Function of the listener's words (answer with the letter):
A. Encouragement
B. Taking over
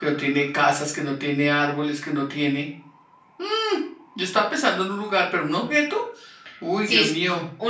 B